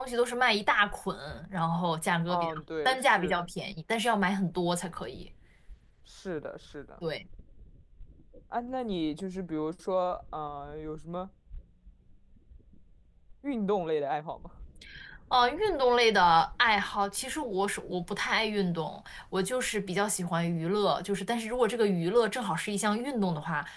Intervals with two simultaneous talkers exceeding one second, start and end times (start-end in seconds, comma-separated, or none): 2.3-3.5